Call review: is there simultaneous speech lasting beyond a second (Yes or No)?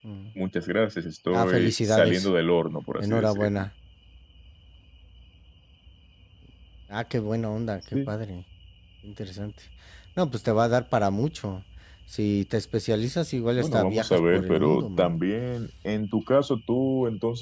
Yes